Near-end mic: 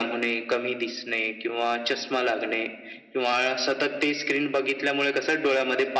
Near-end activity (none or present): none